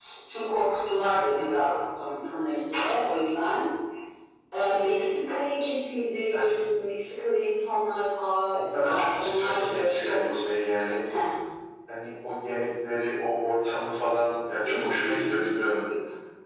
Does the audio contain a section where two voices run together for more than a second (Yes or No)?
Yes